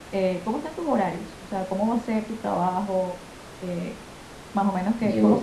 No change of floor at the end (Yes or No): Yes